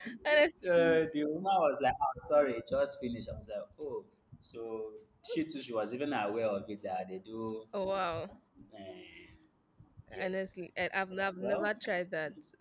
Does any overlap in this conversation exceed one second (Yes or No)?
No